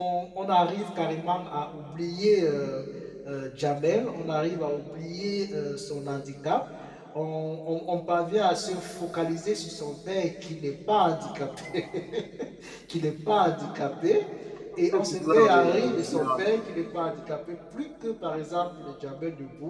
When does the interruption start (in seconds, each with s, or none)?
14.9 s